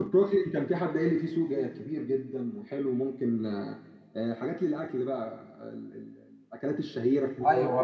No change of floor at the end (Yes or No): No